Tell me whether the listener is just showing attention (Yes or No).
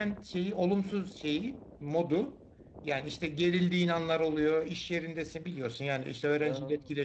Yes